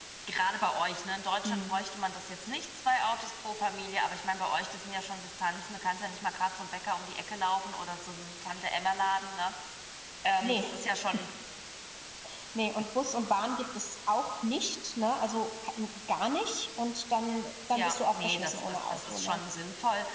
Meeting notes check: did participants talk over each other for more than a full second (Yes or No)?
Yes